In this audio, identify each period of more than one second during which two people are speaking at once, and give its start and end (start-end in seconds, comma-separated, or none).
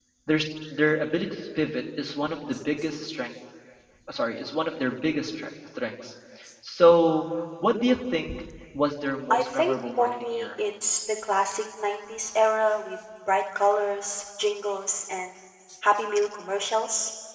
9.3-10.6